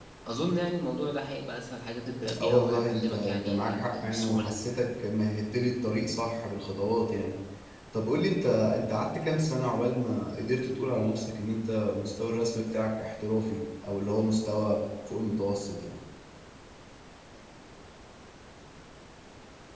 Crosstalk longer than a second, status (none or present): present